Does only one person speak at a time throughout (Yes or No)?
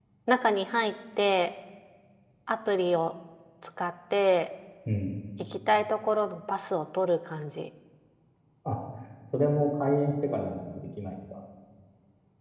Yes